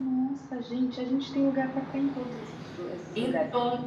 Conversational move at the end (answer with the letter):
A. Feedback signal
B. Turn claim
A